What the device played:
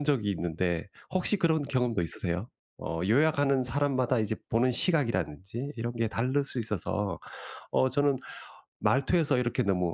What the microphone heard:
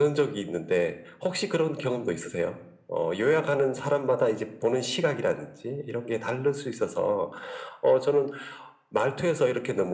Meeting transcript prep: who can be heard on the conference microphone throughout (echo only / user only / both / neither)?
echo only